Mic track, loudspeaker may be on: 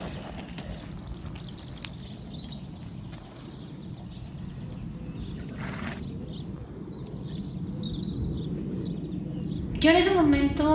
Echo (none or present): none